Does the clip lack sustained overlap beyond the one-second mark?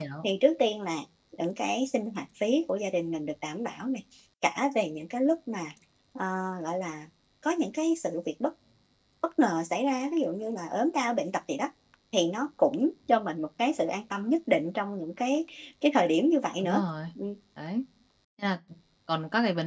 Yes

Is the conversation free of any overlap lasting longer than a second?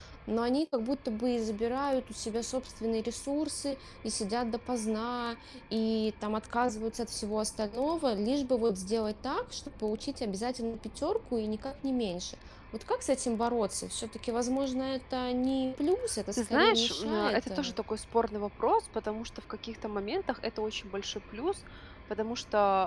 No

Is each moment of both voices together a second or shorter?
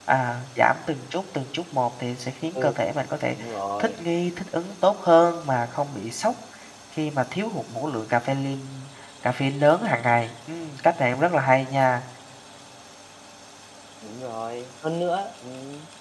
Yes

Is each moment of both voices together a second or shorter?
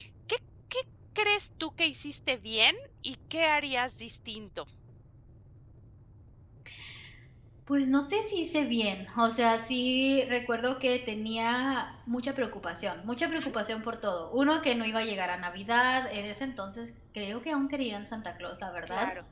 Yes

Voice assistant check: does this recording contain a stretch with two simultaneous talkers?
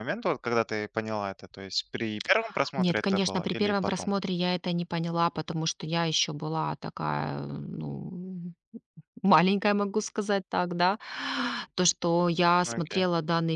Yes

